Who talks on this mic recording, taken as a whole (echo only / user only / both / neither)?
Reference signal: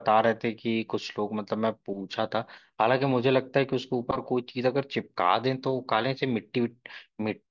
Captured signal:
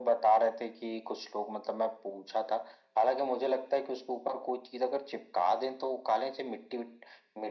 echo only